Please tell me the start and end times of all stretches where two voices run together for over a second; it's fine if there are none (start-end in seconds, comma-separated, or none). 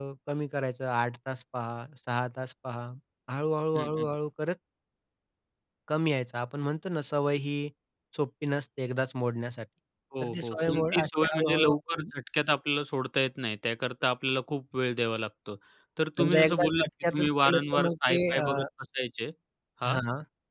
10.2-12.0, 16.2-18.7